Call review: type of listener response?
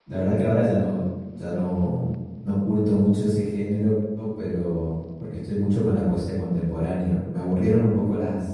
listening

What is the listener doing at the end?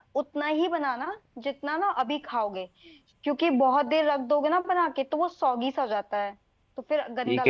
taking over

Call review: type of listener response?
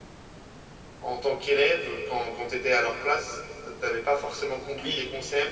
listening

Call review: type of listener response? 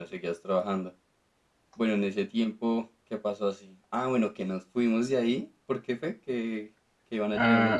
taking over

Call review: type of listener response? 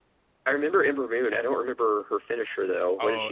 taking over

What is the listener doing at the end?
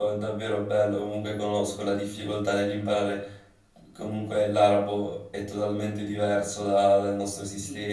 listening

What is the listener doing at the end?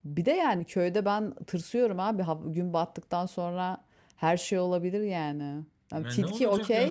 taking over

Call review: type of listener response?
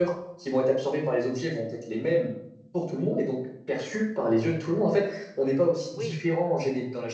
listening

